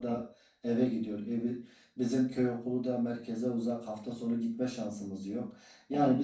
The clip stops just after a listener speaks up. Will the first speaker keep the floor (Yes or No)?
Yes